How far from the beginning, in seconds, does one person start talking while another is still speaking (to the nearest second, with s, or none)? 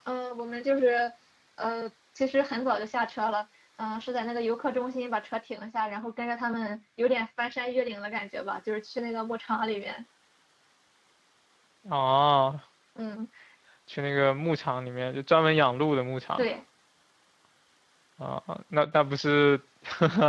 none